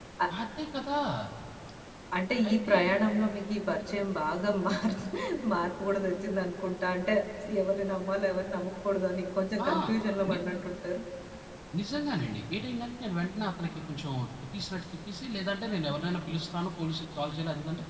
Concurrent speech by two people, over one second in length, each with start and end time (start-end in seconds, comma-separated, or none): none